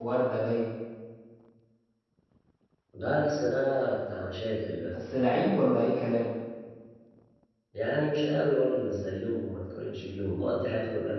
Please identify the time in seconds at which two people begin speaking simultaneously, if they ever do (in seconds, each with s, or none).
none